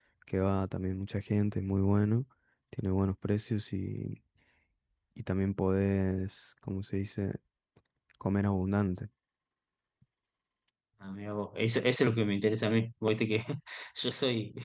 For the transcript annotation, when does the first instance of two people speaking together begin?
none

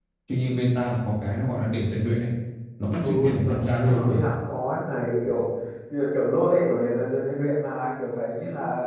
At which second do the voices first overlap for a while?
3.0 s

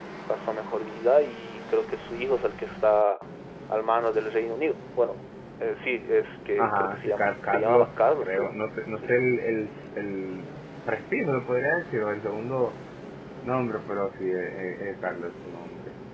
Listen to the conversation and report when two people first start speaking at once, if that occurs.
6.6 s

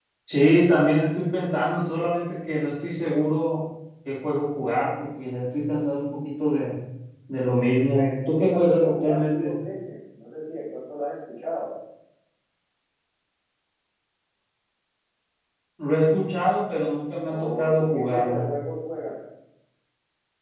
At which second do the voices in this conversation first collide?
7.9 s

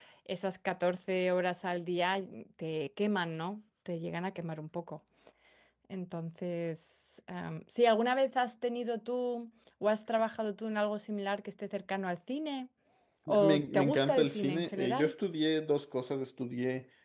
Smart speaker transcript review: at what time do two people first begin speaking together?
13.3 s

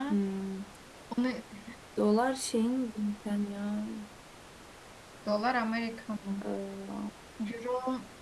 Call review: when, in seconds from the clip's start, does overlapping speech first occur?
none

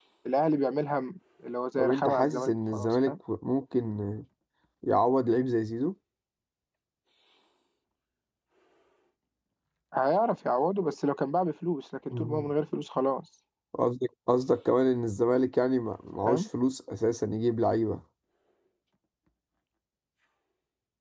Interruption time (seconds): 1.8 s

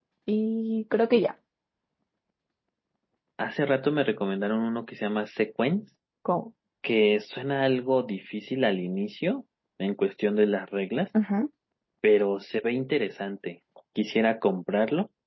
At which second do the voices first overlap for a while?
none

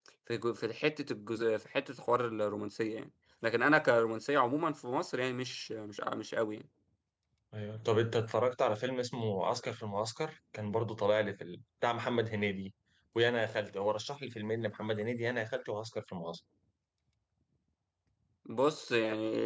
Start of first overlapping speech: none

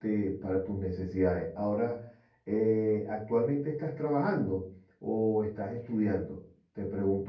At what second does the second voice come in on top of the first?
none

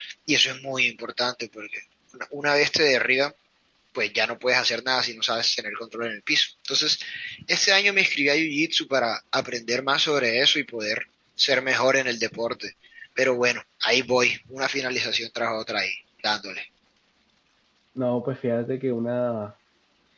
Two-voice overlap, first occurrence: none

